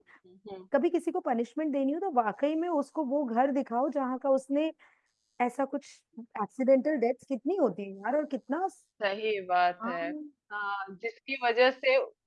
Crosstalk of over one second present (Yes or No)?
No